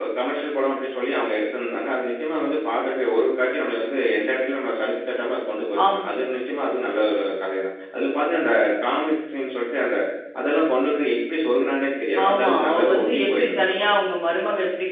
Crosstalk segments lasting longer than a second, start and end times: 12.2-14.1

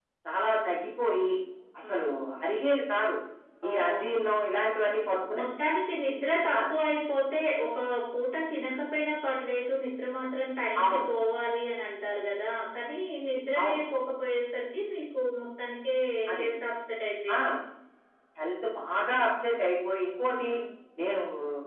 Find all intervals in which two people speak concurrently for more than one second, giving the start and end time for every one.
none

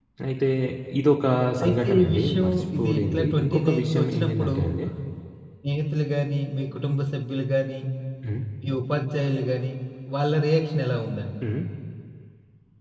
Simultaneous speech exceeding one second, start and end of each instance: 1.6-4.6

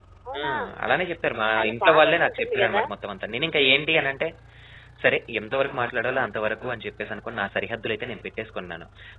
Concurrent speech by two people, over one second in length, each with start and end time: 1.6-2.8

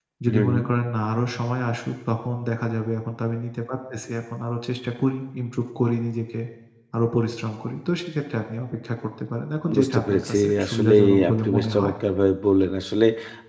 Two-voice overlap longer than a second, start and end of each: 9.8-11.9

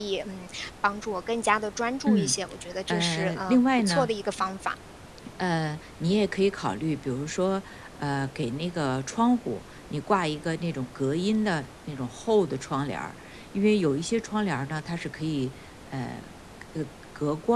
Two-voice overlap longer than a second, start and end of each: 2.9-4.1

